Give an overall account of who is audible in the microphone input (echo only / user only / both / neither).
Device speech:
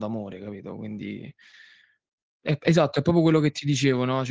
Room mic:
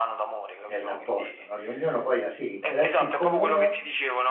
both